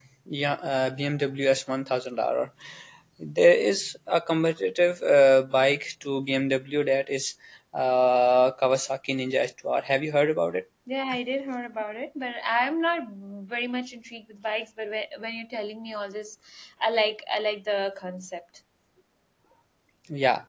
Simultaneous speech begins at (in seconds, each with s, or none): none